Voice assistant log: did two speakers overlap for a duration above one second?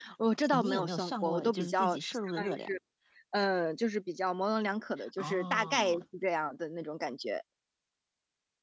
Yes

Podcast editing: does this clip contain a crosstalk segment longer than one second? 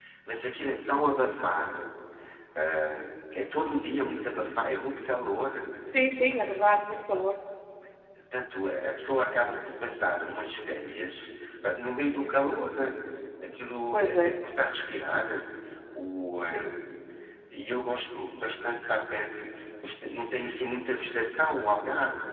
No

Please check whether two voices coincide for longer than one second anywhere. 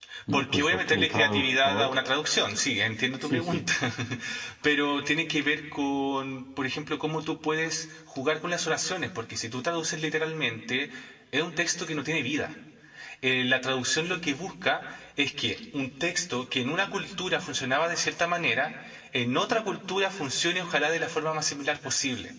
Yes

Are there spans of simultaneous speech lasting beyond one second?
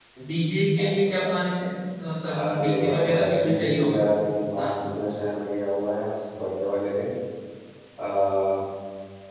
Yes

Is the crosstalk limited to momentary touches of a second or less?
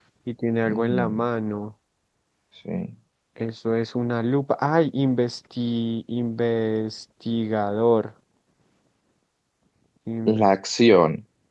Yes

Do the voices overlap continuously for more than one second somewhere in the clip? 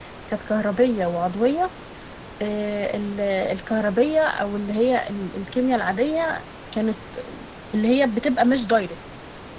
No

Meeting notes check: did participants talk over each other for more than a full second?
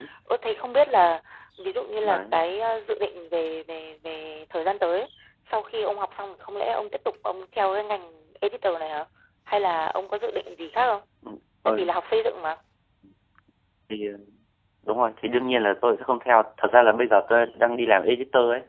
No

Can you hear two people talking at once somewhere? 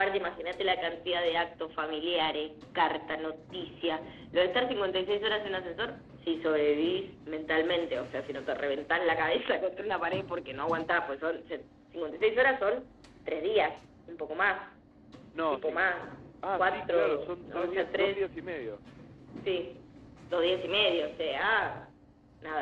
Yes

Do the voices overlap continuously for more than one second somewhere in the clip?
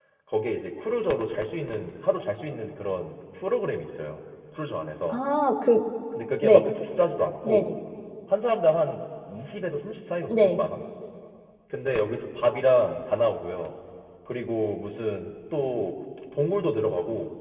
No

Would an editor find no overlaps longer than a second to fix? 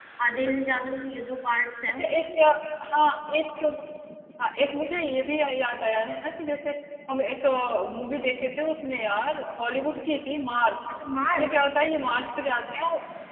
Yes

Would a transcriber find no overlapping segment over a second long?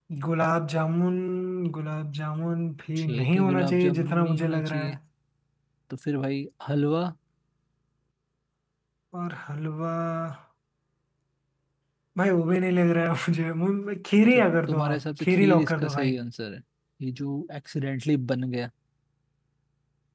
No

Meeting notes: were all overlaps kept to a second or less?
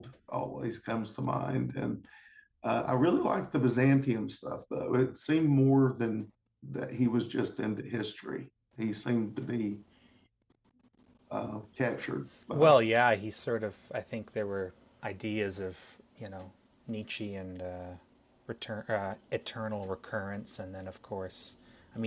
Yes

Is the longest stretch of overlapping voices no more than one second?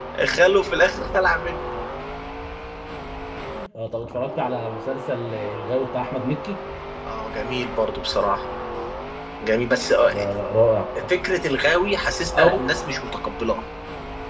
Yes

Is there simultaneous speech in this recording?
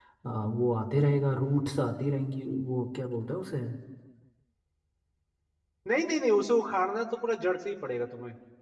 No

